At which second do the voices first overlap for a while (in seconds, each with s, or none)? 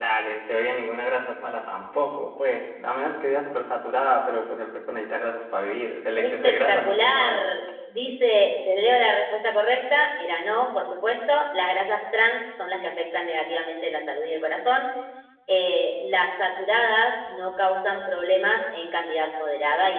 6.2 s